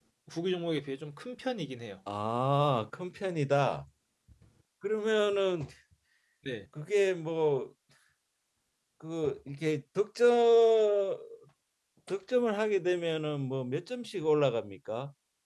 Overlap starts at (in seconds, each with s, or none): none